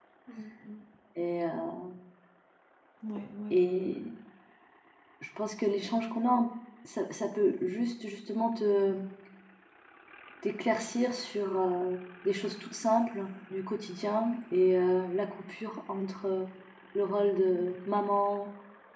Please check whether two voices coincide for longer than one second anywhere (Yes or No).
No